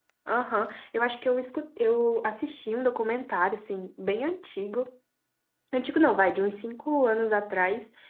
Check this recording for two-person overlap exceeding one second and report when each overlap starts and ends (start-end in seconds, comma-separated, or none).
none